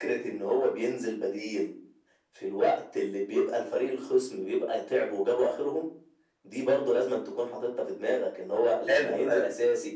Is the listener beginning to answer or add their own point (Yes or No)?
No